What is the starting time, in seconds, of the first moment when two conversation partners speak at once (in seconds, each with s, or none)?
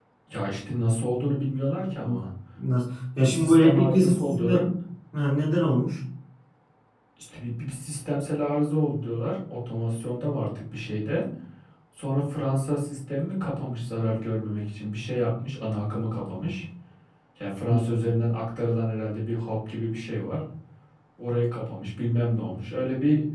3.2 s